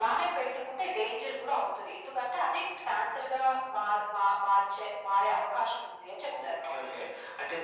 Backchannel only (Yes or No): No